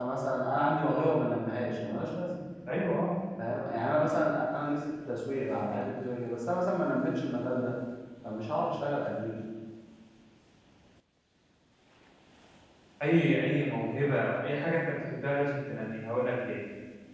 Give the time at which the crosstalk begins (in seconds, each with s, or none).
none